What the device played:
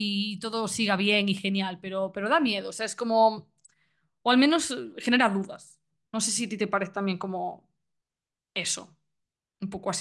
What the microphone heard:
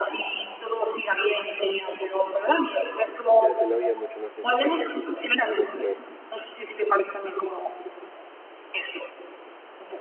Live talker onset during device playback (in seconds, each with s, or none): 3.4 s